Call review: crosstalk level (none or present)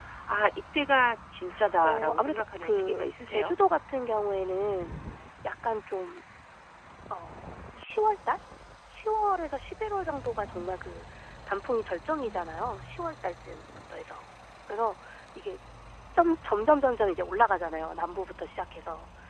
present